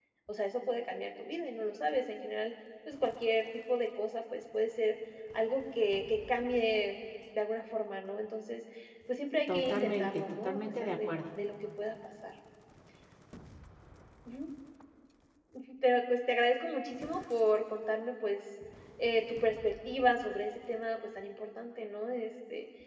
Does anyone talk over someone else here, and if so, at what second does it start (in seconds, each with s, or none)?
9.5 s